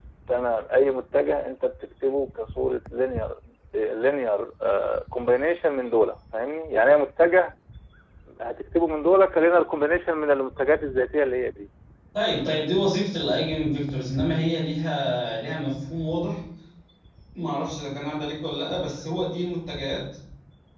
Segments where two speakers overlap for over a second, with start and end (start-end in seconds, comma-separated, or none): none